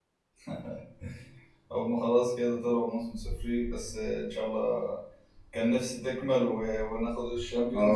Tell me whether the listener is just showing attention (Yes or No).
No